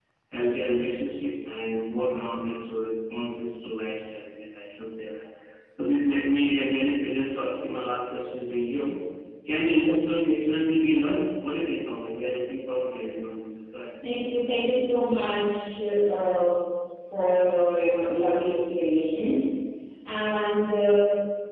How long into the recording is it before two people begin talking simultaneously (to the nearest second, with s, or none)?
none